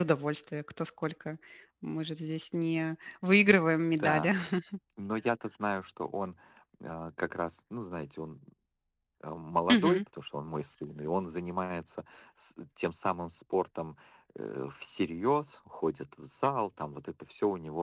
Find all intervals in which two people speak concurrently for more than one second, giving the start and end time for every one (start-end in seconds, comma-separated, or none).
none